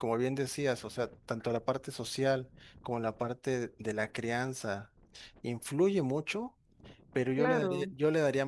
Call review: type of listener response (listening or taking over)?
listening